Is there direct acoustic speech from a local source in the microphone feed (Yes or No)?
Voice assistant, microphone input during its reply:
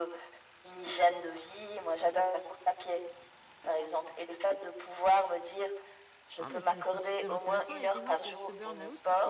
Yes